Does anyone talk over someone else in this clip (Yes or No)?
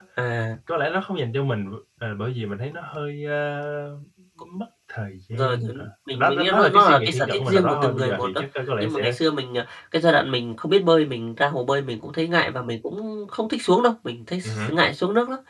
Yes